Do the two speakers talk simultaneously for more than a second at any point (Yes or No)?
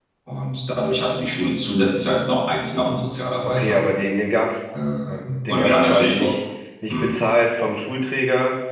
Yes